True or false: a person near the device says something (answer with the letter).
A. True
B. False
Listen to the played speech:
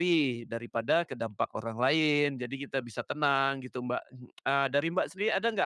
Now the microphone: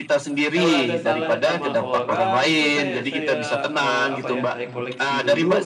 A